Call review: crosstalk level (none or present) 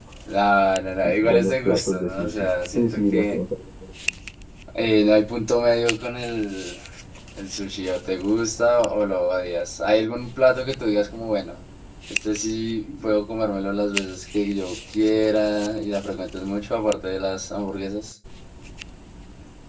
present